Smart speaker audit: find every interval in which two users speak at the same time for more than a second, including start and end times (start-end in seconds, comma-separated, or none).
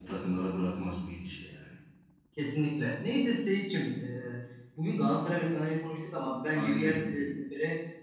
none